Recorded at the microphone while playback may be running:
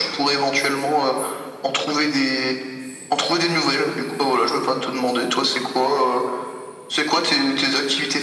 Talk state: echo only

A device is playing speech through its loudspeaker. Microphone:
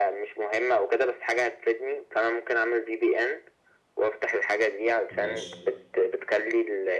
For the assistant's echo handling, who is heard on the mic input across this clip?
both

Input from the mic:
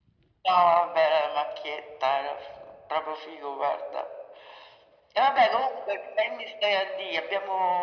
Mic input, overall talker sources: echo only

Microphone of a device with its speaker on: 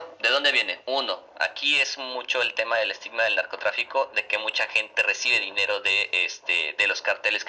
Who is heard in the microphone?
echo only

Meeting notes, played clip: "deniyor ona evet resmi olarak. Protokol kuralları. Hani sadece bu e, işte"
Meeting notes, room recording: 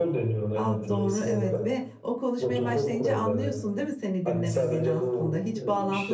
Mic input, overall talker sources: both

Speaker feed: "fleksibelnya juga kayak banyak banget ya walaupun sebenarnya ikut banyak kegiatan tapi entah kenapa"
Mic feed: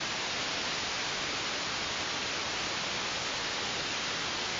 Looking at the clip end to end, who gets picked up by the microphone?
neither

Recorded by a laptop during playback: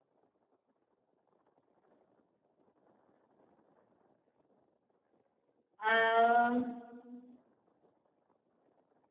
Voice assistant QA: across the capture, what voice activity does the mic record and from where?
user only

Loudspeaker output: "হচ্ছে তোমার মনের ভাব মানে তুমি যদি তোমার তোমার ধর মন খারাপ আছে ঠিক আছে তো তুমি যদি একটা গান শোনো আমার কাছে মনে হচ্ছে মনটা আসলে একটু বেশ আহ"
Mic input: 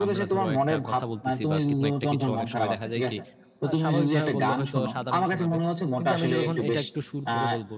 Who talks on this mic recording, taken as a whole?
both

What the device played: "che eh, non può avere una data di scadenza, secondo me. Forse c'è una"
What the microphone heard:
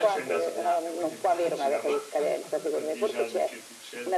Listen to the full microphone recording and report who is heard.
both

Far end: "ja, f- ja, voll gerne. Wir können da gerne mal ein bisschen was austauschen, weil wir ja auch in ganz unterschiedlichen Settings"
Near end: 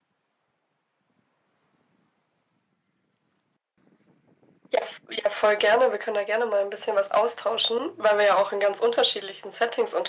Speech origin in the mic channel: echo only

